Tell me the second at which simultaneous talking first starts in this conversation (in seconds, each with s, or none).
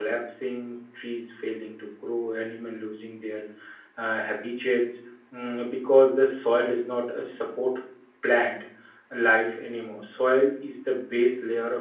none